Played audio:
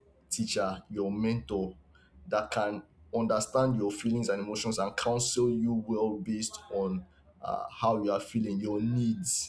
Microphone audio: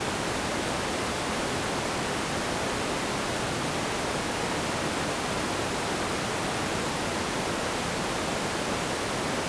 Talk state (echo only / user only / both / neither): neither